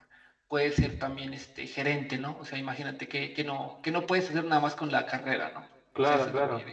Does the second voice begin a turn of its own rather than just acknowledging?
Yes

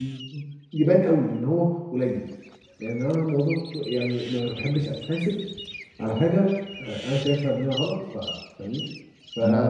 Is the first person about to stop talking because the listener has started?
No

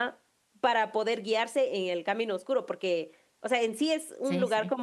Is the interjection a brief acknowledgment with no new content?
Yes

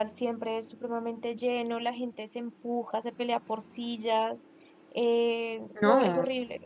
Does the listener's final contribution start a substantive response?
No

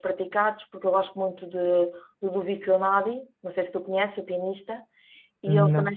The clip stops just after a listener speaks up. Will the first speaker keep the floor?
Yes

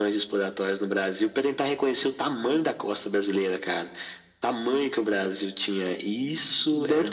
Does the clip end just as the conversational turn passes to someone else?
Yes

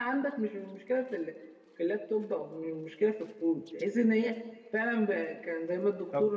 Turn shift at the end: Yes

